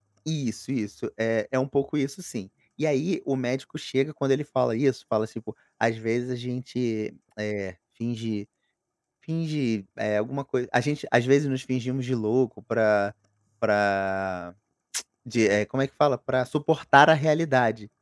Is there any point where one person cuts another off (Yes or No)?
No